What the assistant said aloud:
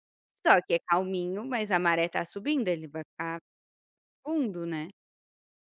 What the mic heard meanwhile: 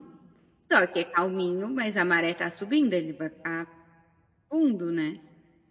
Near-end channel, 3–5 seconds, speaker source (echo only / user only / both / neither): echo only